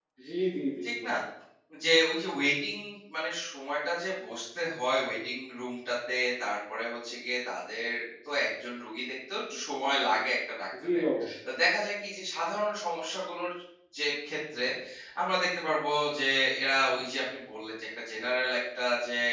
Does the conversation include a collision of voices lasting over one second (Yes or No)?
No